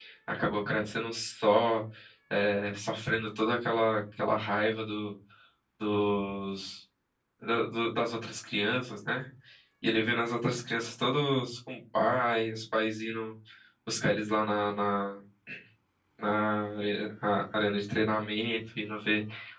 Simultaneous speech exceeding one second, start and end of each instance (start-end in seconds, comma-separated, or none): none